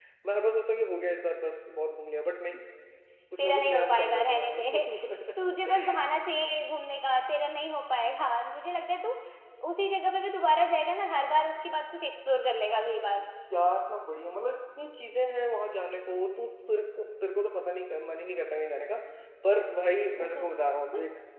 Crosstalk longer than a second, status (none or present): present